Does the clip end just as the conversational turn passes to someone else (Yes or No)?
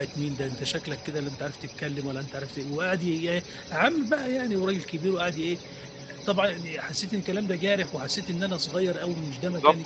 Yes